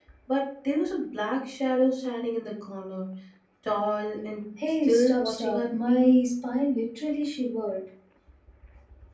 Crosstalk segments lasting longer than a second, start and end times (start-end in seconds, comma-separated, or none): 4.8-6.1